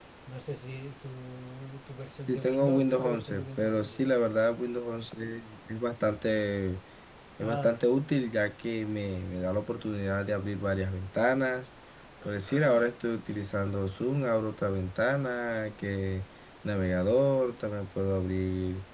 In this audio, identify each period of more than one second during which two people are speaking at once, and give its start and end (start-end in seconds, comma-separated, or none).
2.3-4.1